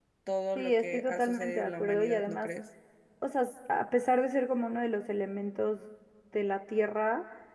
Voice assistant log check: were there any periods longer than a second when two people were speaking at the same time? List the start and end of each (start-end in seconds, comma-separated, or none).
0.6-2.5